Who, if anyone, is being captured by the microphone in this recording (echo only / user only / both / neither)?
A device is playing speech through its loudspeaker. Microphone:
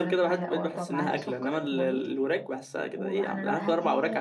both